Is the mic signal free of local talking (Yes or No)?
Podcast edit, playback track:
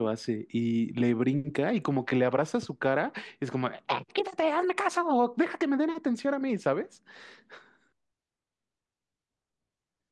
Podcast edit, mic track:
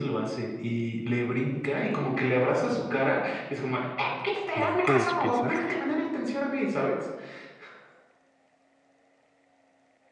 No